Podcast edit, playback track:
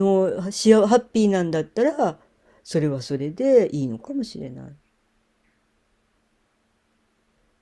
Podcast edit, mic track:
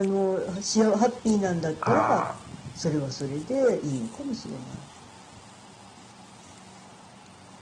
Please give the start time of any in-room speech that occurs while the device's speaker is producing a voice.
1.8 s

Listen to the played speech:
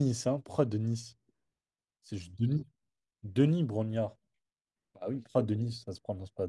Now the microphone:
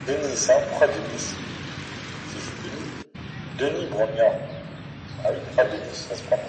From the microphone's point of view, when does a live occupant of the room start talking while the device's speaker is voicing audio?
none

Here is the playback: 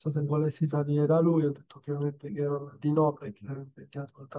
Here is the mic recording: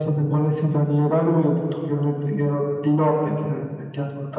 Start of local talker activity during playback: none

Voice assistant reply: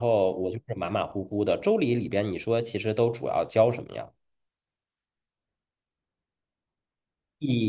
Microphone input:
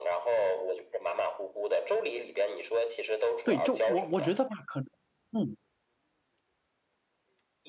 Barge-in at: 3.4 s

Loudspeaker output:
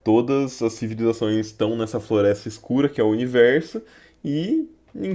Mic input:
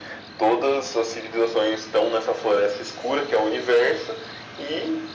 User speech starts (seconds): none

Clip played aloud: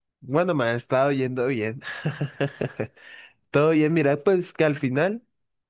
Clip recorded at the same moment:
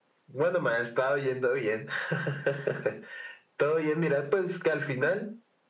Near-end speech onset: none

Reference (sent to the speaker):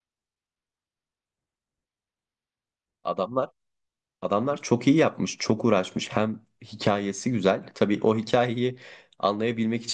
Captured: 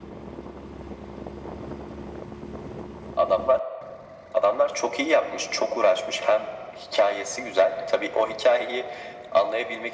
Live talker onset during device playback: none

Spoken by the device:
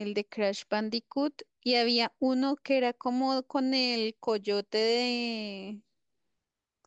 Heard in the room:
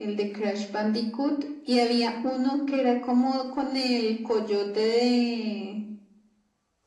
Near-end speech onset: none

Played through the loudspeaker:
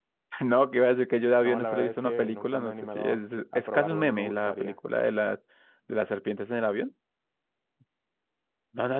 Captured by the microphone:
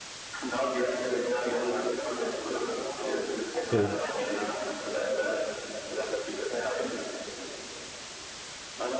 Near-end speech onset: 3.7 s

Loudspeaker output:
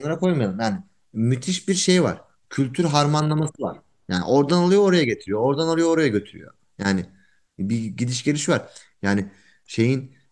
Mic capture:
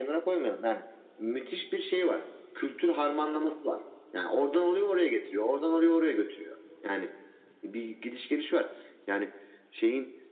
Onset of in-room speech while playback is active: none

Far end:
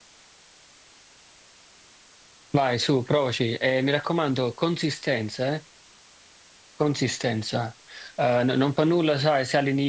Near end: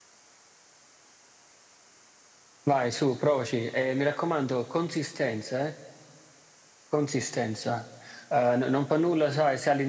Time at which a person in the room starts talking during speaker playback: none

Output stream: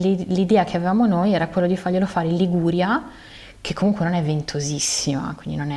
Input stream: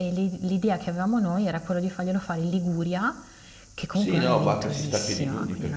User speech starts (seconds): 3.9 s

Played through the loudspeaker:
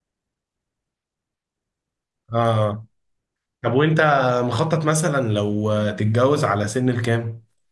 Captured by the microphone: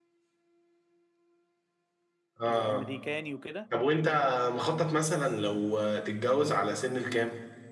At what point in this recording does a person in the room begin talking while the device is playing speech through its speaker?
2.5 s

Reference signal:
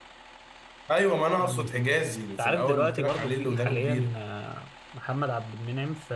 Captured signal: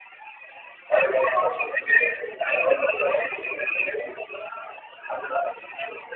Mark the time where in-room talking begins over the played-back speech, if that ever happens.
none

